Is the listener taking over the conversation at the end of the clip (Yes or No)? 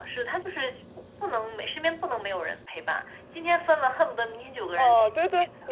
Yes